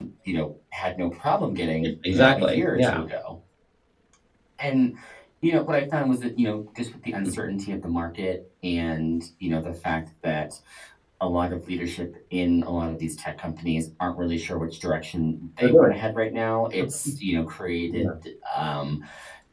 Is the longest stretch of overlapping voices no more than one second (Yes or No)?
No